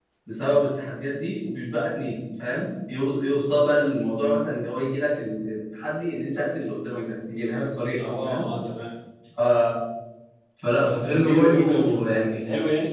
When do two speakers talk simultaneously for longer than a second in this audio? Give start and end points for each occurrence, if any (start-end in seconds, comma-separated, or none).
10.8-12.4